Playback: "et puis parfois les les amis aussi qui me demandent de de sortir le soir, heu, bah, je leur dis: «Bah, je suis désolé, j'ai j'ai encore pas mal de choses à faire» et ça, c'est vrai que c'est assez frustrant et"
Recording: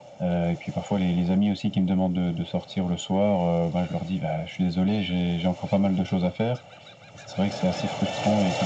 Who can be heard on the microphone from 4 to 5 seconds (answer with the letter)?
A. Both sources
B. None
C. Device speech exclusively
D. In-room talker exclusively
C